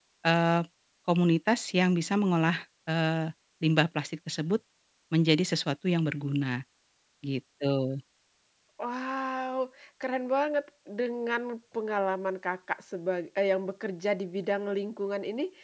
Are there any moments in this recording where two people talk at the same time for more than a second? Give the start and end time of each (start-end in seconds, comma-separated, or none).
none